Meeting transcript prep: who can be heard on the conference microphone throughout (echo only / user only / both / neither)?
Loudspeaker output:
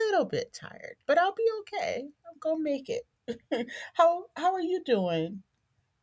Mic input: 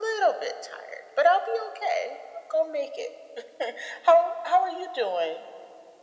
echo only